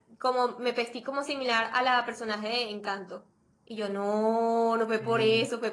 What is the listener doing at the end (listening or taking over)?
listening